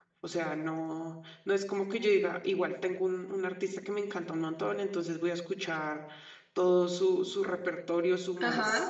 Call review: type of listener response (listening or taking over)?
listening